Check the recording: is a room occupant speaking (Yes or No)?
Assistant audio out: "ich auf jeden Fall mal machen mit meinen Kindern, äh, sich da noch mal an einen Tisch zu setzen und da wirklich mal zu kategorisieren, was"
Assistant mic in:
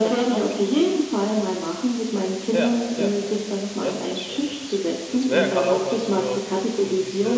Yes